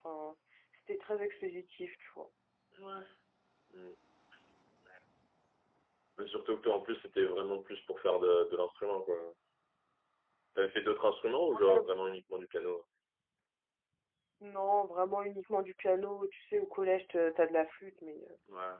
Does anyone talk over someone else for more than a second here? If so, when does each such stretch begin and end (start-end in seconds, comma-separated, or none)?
none